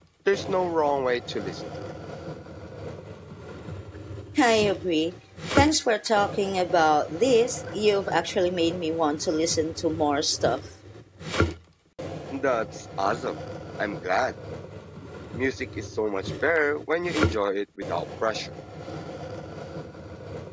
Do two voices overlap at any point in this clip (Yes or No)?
No